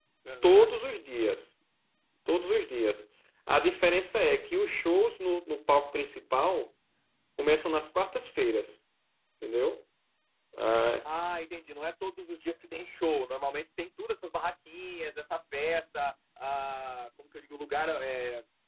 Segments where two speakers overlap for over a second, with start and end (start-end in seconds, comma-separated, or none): none